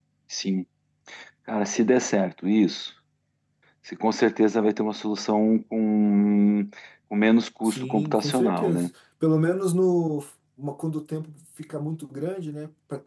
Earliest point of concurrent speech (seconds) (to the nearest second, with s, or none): 8 s